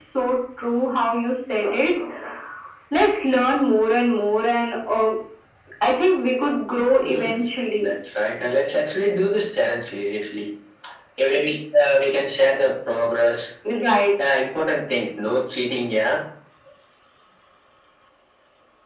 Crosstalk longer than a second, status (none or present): none